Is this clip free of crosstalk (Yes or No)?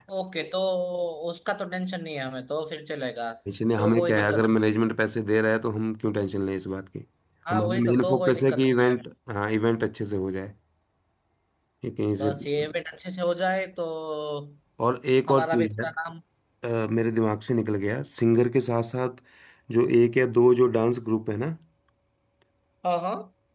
No